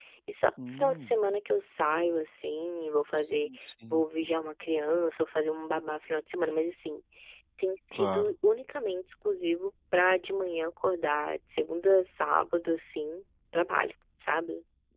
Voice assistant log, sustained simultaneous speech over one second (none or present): none